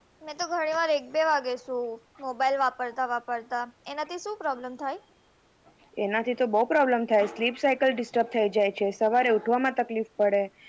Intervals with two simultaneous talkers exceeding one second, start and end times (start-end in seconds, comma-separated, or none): none